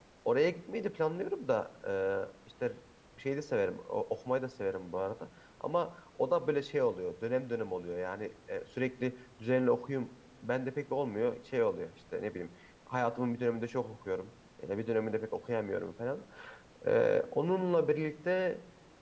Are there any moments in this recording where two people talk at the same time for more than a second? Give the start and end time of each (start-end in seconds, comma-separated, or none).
none